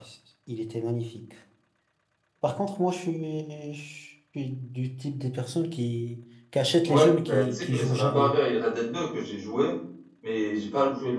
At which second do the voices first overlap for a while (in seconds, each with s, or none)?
6.9 s